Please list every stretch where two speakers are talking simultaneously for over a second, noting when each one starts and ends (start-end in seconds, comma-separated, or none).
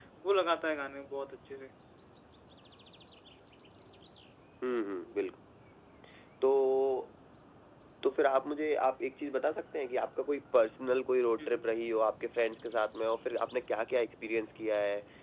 none